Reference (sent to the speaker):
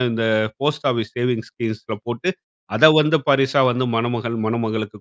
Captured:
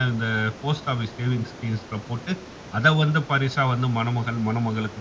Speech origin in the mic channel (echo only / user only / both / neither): echo only